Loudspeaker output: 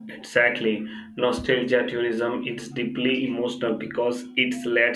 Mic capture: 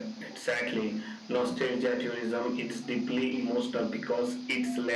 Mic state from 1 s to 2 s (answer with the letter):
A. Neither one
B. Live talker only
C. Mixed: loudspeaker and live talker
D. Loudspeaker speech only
D